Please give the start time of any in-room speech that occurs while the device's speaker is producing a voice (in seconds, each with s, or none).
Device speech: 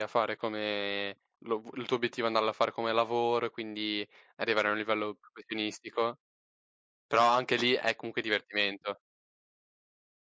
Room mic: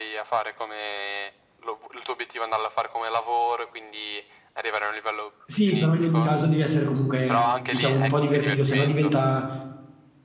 5.5 s